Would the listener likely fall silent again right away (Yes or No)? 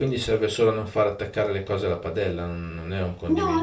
No